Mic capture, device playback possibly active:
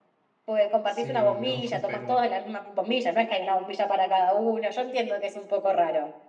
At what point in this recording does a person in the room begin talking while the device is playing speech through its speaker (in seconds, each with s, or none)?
0.8 s